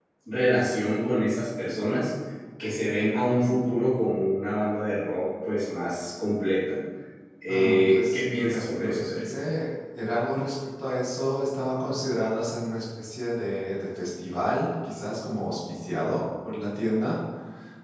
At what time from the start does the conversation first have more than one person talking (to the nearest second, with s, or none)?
7 s